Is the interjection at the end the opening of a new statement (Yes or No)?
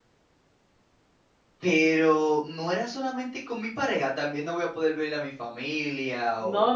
Yes